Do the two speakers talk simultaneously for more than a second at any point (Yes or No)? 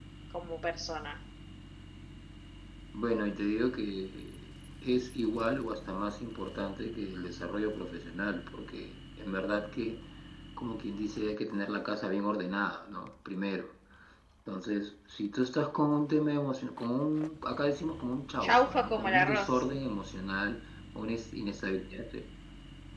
Yes